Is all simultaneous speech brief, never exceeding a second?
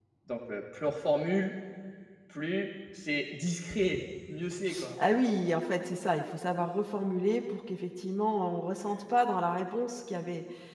Yes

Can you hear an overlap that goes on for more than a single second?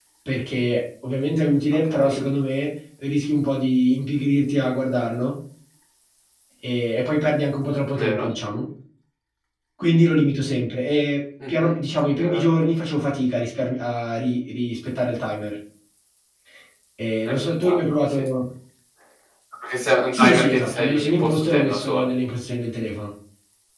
Yes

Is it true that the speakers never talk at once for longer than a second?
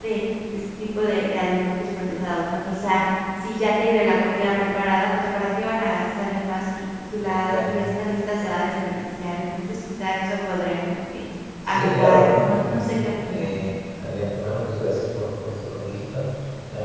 No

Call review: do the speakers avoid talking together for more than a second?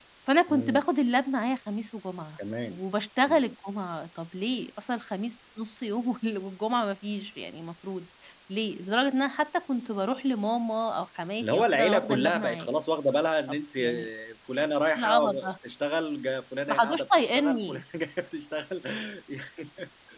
No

